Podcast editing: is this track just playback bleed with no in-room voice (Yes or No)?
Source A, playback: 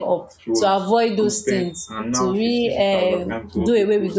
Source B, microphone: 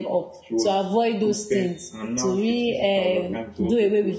Yes